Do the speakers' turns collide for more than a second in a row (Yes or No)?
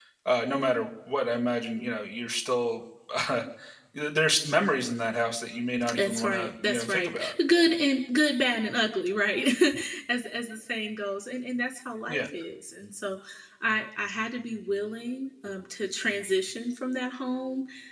Yes